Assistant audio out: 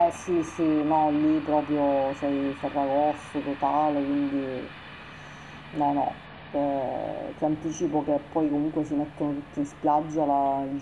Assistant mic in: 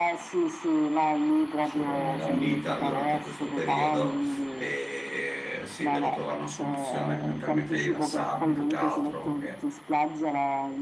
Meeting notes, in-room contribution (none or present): present